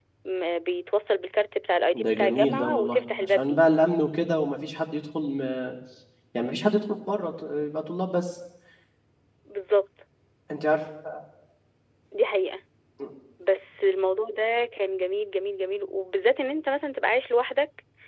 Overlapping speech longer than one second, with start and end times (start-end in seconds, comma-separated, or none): 1.9-3.6